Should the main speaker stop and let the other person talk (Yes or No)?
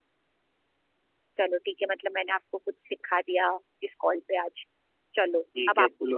Yes